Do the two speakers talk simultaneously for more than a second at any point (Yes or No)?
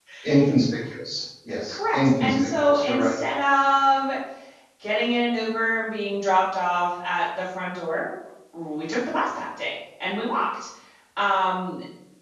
Yes